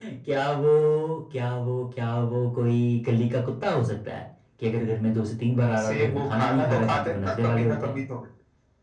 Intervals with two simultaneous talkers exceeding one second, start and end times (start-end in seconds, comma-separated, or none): 5.8-8.0